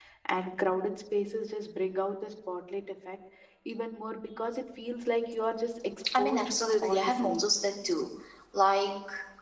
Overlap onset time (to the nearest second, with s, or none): 6 s